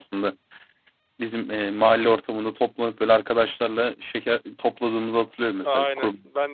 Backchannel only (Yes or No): No